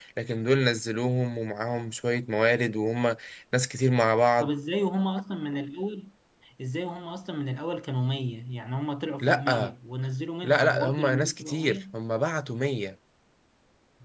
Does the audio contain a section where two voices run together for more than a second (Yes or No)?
Yes